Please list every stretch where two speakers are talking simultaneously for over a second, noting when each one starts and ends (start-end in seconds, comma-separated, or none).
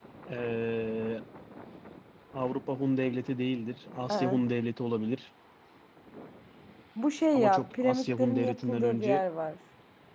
7.3-9.2